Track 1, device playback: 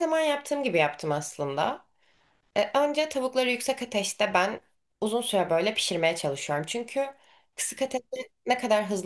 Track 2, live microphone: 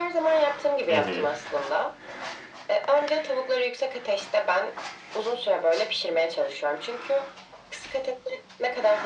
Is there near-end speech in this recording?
Yes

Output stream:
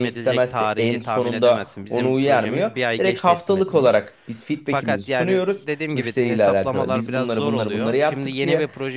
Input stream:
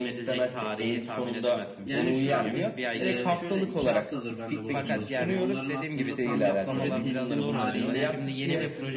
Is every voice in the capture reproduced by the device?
No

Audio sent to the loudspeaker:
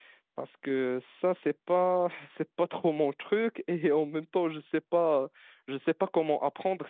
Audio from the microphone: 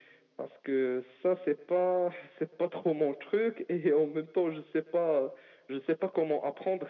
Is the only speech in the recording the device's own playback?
Yes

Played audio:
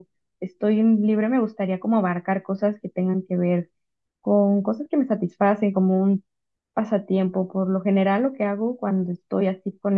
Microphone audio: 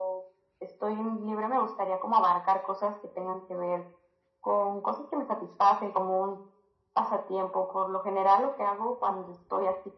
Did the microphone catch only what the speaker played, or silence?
Yes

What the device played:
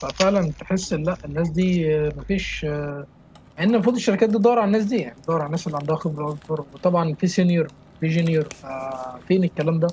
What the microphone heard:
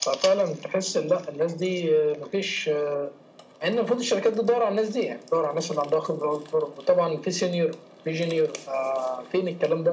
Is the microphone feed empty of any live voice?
Yes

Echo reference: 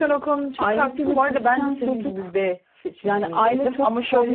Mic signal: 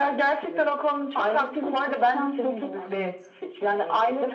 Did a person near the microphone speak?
Yes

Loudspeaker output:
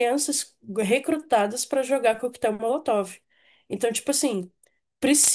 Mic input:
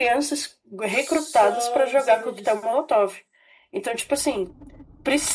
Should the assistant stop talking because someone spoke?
Yes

